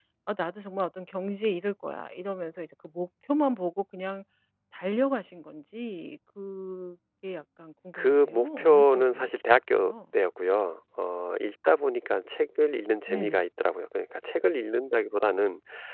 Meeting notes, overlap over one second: present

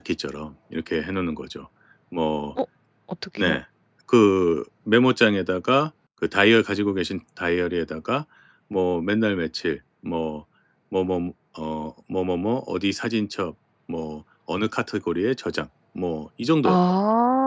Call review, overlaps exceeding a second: none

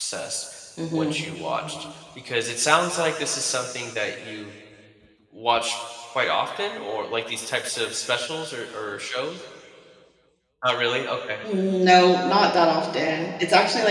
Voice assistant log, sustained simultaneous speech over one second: none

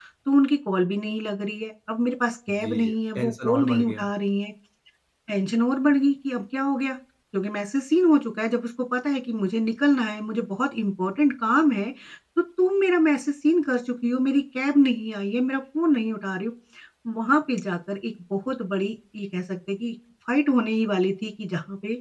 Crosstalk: present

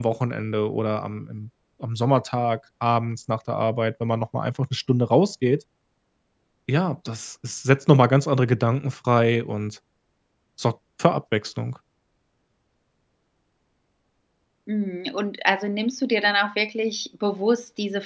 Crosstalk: none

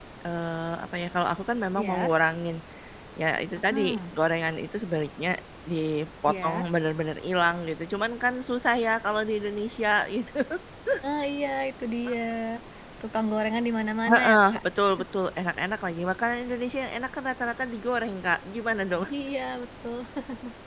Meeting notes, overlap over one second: none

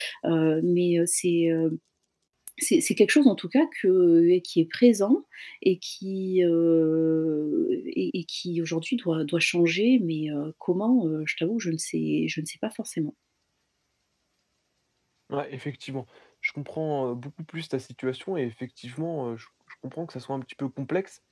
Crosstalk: none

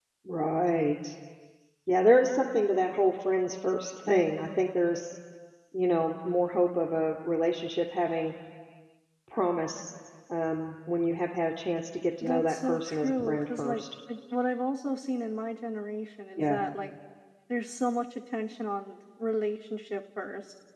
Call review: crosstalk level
present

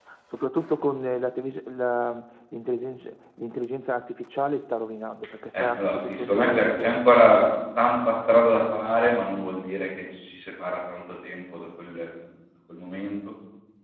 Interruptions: present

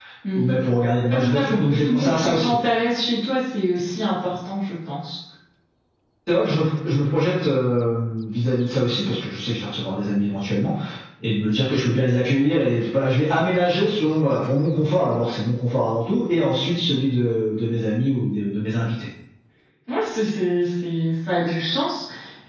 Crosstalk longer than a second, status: present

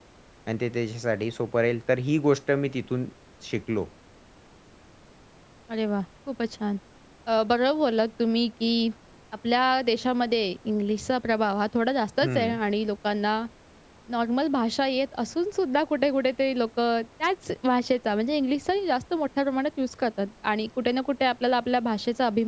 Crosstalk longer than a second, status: none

